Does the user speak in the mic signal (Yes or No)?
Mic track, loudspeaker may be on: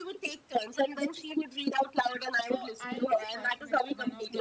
Yes